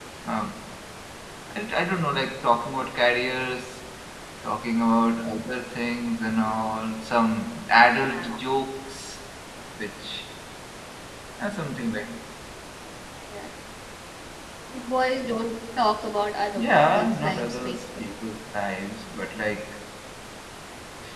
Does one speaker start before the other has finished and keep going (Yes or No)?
Yes